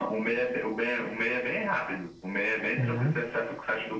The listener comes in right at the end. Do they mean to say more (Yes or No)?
No